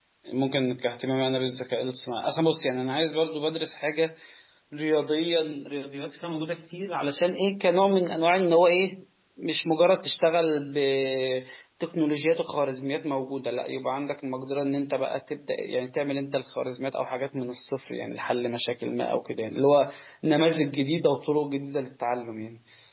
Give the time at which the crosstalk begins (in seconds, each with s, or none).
none